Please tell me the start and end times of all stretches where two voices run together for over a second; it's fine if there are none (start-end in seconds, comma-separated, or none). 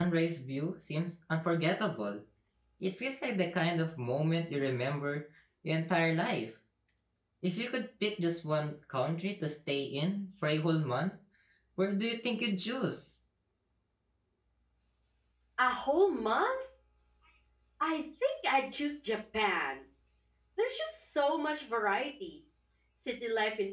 none